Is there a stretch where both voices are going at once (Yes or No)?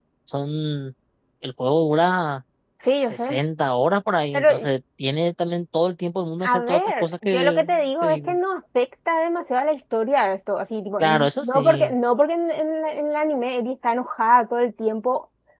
Yes